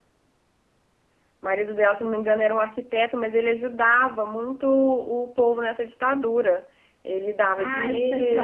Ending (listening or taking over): taking over